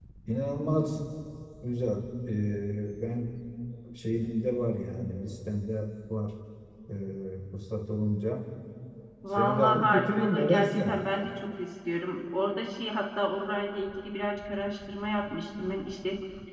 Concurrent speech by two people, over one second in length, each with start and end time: 9.3-11.0

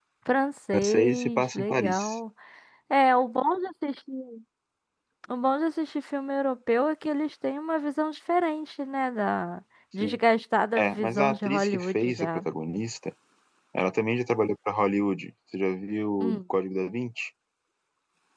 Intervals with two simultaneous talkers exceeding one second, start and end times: 0.7-2.2, 10.8-12.4

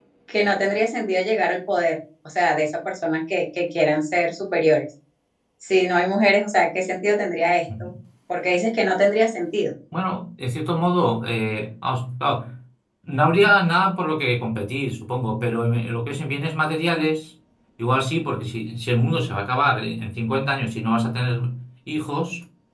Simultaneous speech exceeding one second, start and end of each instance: none

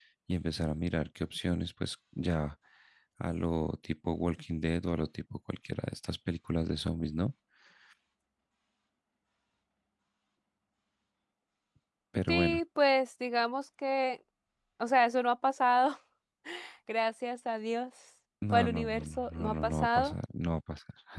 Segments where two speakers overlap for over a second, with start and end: 18.5-20.1

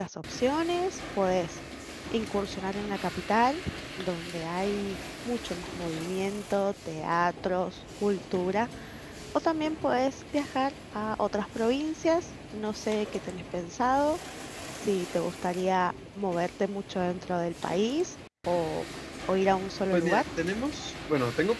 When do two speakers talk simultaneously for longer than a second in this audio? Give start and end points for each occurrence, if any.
none

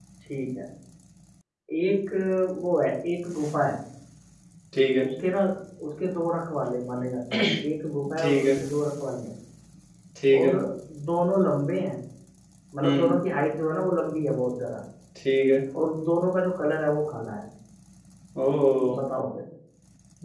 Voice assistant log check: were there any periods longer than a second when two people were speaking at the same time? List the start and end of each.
none

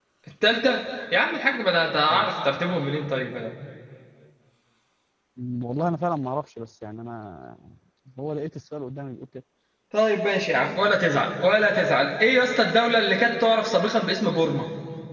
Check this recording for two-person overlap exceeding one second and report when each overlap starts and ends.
none

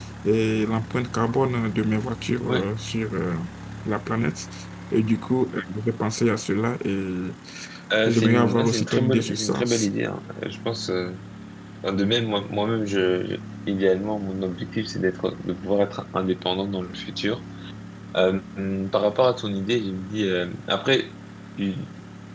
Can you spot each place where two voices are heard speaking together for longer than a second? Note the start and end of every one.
8.0-9.6

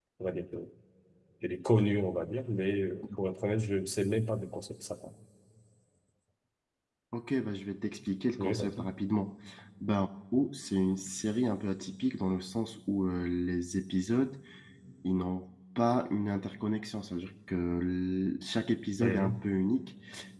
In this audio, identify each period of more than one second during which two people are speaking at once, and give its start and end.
none

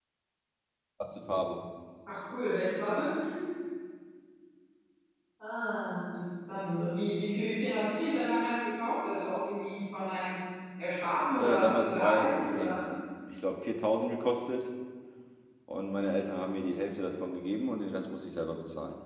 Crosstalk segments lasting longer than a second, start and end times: 11.4-12.8

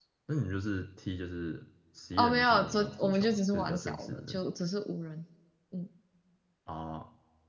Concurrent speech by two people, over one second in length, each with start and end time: 2.2-4.4

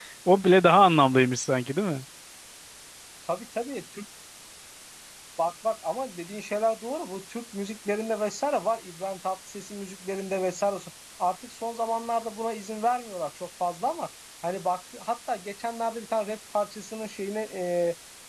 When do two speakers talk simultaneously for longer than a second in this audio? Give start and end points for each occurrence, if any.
none

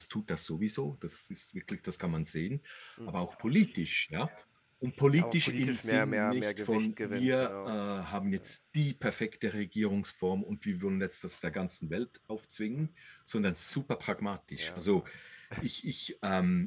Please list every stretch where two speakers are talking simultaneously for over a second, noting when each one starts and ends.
5.2-7.7

